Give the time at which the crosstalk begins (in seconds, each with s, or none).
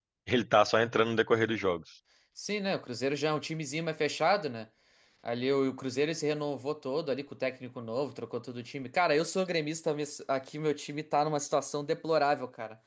none